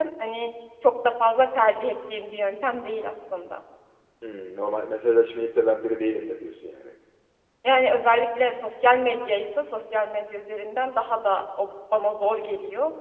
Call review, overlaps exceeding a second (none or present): none